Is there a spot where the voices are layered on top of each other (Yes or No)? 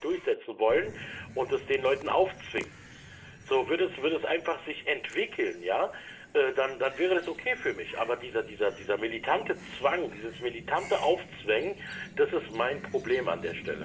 No